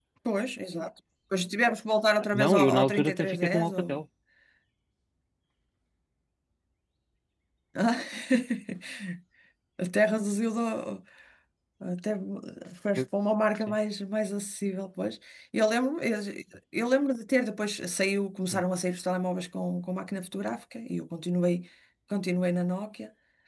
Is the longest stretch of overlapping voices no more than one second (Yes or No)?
No